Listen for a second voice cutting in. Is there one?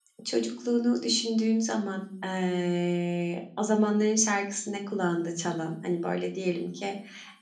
No

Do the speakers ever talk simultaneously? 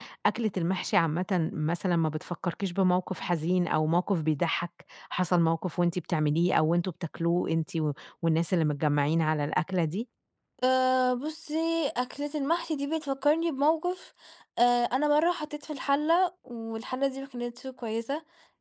No

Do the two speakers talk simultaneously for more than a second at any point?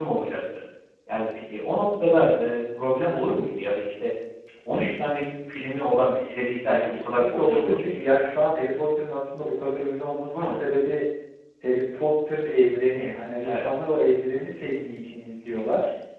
Yes, from 6.7 s

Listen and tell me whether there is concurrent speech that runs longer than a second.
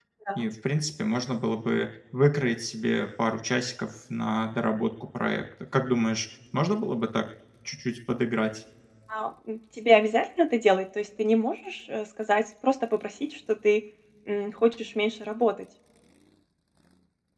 No

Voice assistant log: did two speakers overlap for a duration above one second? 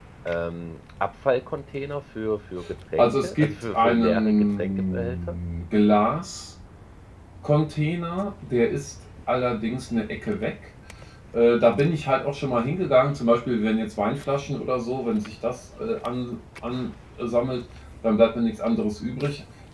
Yes, from 3.0 s

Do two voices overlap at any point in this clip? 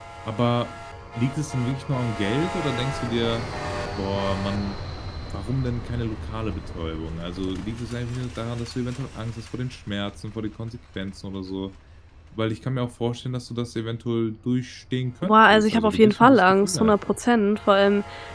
Yes, from 15.2 s

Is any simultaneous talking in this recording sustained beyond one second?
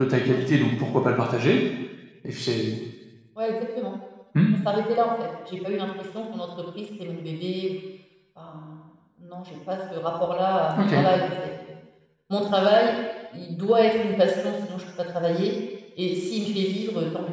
No

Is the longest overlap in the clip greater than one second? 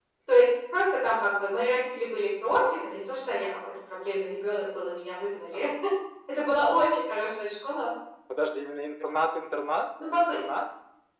No

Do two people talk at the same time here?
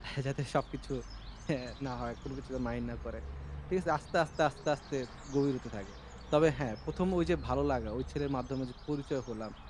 No

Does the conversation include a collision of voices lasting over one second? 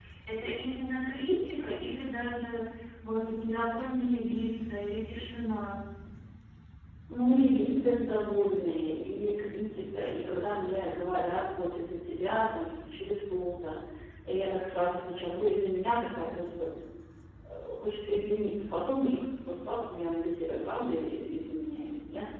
No

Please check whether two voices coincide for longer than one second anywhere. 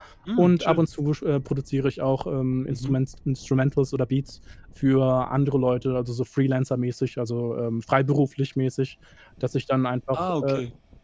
No

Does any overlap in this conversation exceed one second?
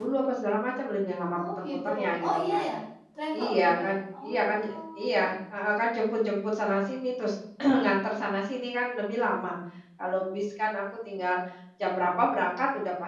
Yes, from 1.3 s

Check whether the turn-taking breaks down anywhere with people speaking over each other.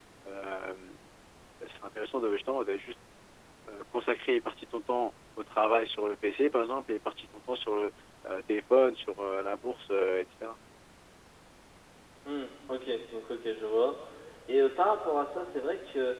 No

